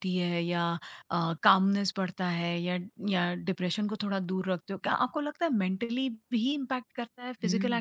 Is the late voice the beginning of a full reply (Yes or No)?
Yes